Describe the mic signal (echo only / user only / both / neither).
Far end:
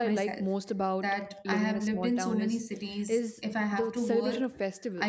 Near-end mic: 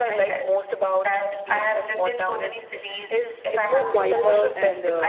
both